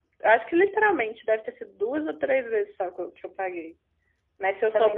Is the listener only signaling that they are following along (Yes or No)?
No